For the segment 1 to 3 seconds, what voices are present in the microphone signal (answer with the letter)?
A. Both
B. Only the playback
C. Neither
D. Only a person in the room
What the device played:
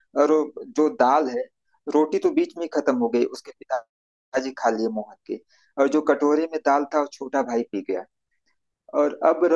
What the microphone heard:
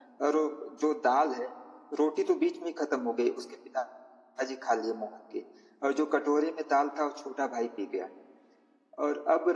B